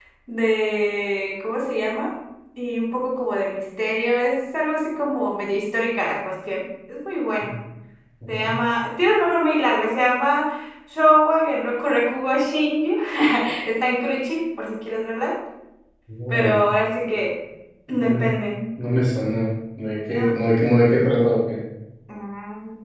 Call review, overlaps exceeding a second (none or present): none